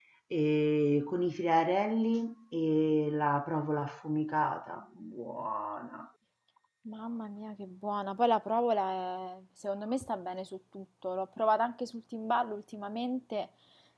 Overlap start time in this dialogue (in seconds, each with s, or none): none